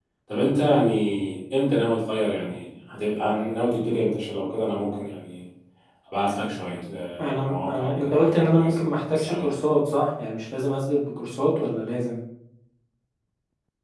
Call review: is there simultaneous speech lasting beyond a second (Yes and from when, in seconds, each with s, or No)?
Yes, from 7.2 s